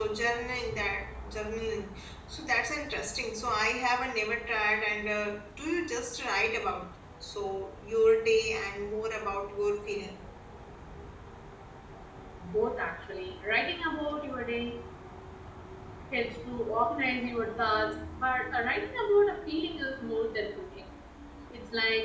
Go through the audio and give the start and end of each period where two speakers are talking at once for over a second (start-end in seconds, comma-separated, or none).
none